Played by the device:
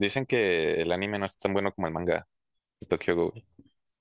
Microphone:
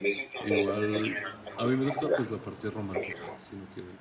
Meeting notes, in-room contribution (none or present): present